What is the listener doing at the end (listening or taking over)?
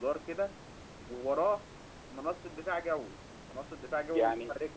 taking over